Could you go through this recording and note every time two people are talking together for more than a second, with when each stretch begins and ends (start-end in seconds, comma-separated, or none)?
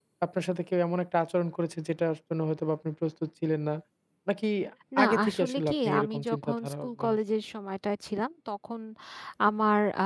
5.0-7.2